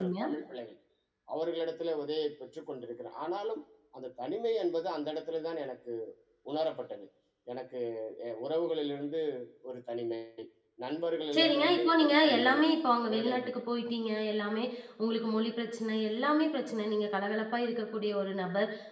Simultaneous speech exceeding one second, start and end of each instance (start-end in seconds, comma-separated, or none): 11.3-12.6